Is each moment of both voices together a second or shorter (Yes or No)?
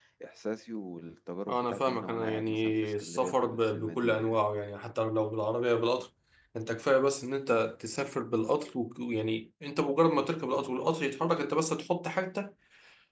No